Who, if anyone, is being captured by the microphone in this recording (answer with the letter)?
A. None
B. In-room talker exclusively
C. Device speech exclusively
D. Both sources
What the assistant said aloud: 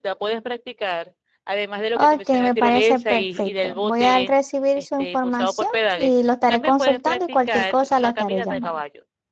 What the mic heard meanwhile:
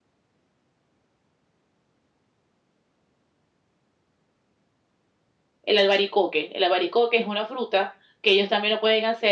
B